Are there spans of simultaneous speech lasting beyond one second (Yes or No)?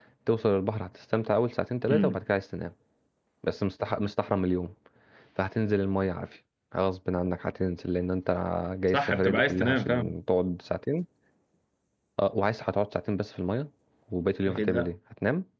Yes